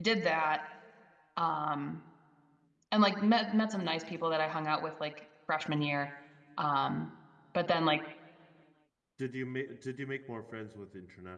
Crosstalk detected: No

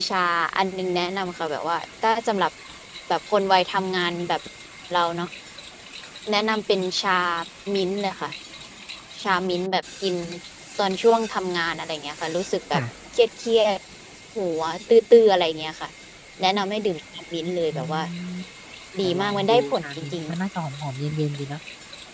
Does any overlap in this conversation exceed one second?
Yes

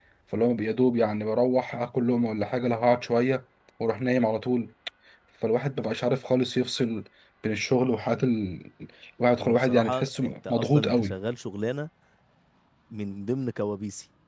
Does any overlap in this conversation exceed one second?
Yes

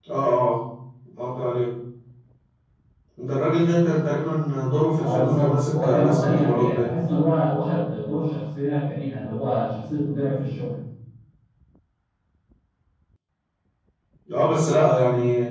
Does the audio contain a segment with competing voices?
Yes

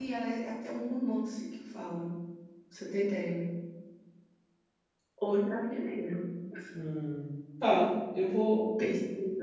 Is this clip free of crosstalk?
Yes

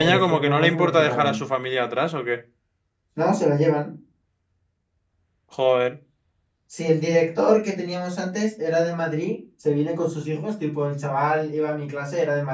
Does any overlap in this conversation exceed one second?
Yes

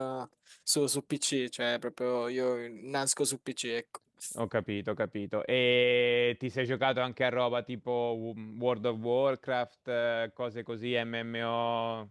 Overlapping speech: No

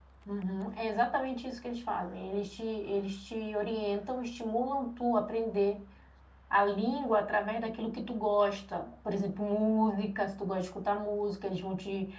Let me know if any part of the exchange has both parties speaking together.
No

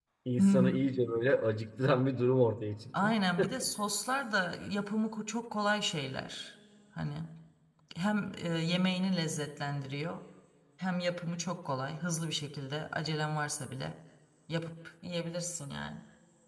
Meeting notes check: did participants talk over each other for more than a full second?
No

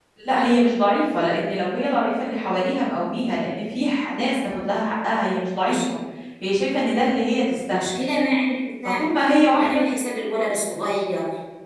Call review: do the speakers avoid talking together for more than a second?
Yes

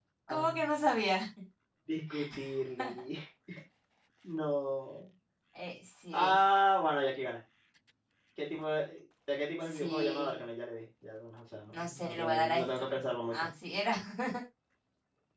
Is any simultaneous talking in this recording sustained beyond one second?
Yes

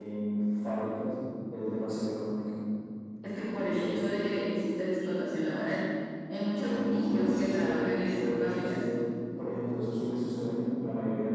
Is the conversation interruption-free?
No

